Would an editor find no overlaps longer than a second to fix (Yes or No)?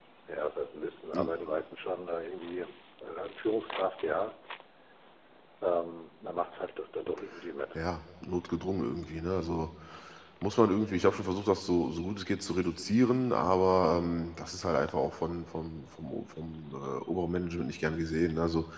Yes